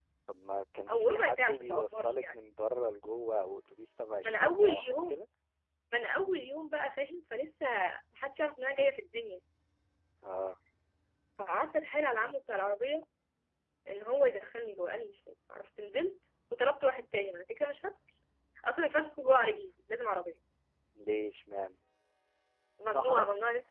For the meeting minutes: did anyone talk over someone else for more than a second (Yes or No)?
Yes